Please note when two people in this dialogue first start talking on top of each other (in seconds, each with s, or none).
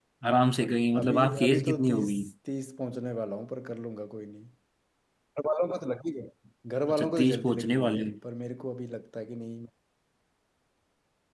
0.9 s